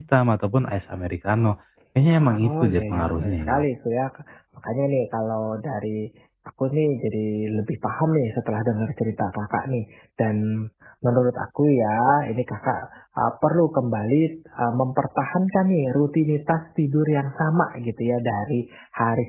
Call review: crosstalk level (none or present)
present